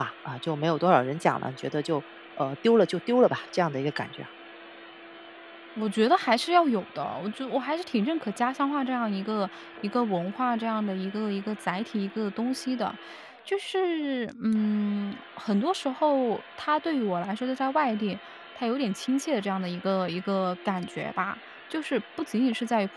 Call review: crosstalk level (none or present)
none